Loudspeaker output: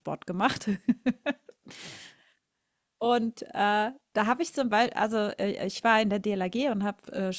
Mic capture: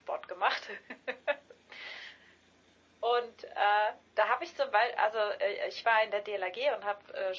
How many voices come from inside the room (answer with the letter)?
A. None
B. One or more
A